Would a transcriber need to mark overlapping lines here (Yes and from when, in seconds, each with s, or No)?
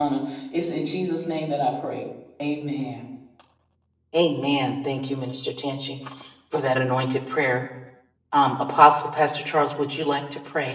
No